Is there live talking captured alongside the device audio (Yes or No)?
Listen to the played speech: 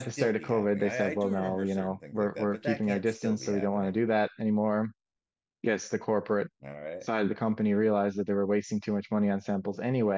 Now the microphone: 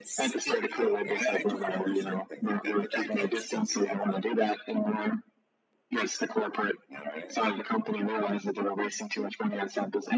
No